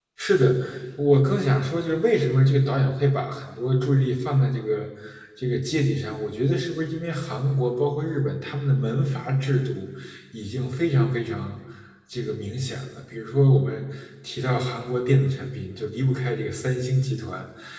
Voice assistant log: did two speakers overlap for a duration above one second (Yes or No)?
No